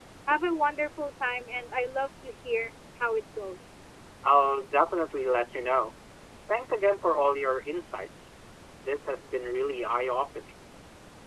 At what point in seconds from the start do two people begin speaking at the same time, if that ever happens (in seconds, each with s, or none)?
none